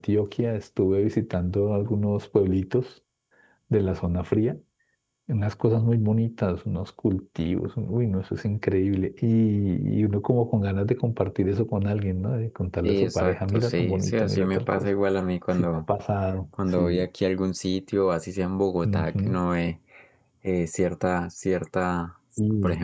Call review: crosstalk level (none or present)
present